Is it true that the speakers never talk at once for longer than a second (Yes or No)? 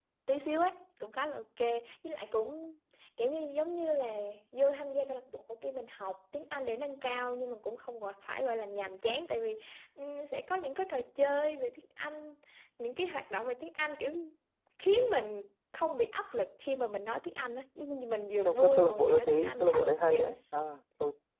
No